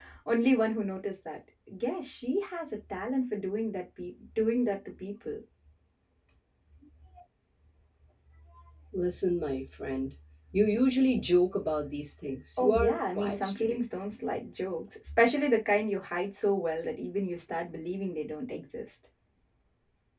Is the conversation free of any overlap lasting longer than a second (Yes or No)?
No